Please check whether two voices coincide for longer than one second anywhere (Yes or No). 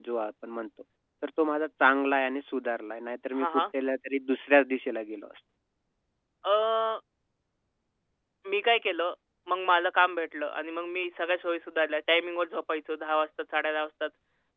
No